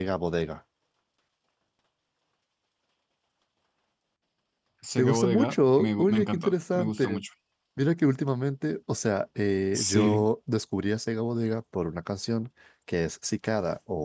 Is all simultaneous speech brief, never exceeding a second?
No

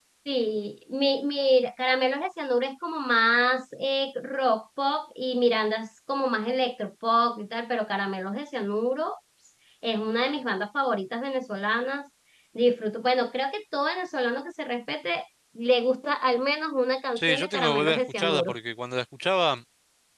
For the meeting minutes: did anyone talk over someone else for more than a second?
Yes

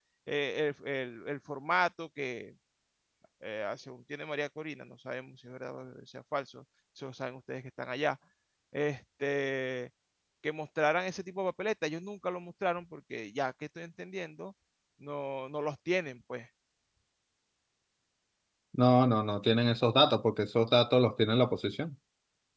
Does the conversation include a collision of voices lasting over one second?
No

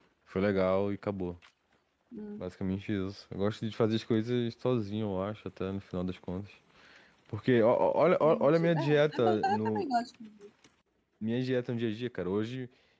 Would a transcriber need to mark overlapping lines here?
Yes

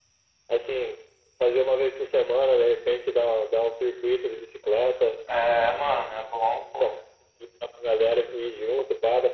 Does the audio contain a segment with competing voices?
No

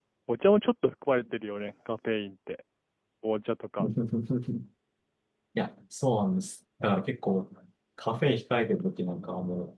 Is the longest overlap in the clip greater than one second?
No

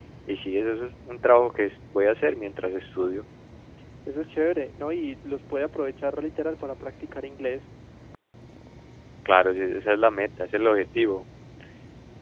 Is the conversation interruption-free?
Yes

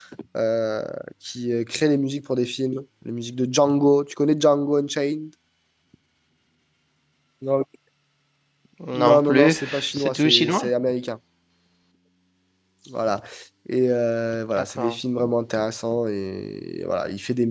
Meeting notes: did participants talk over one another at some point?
Yes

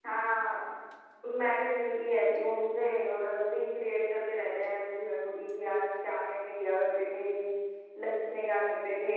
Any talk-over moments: No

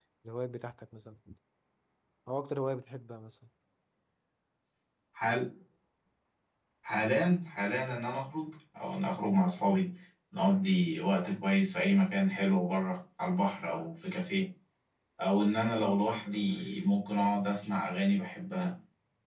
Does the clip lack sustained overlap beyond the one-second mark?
Yes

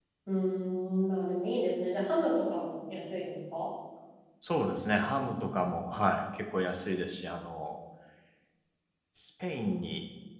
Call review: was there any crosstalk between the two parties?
No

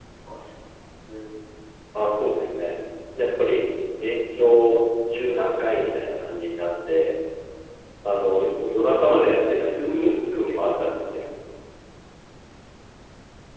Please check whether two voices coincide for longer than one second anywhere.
Yes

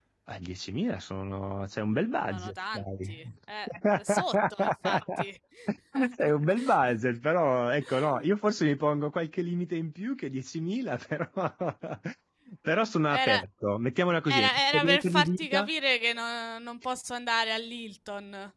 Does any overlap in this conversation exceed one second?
Yes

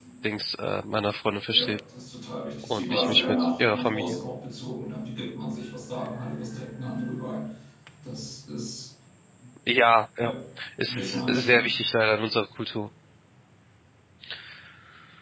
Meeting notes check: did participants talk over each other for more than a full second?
Yes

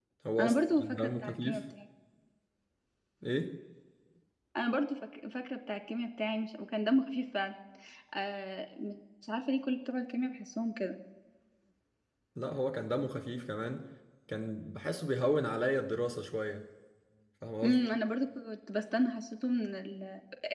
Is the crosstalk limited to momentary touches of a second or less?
No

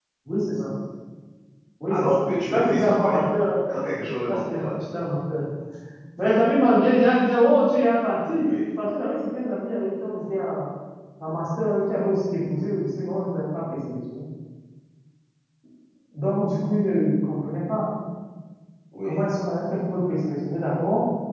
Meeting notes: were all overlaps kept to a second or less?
No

